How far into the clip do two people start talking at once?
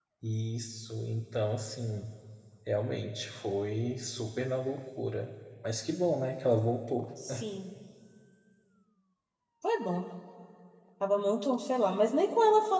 none

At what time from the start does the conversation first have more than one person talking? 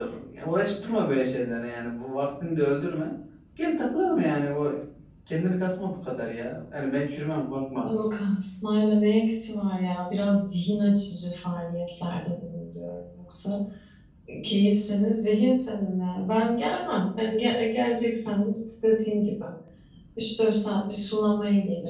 none

